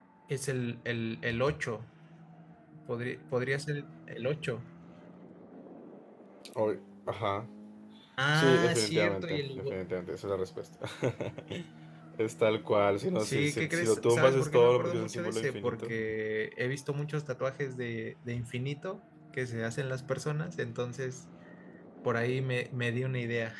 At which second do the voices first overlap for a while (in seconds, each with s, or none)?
8.3 s